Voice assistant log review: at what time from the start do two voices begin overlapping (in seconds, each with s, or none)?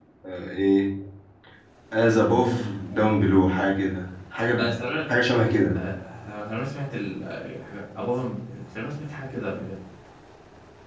none